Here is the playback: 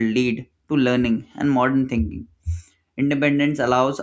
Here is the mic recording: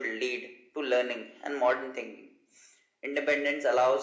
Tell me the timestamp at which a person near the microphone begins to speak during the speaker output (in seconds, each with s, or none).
none